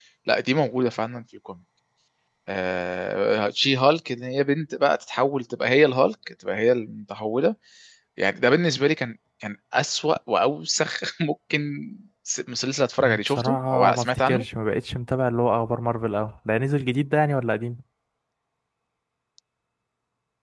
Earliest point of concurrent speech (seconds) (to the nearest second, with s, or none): 13 s